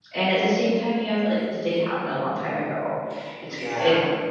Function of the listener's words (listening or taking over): listening